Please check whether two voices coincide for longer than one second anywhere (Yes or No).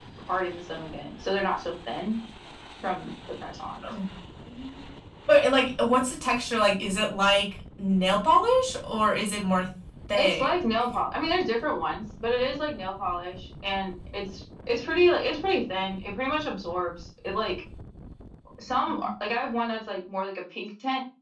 No